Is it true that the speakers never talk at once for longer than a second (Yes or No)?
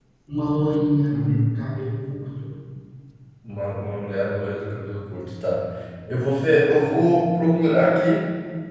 Yes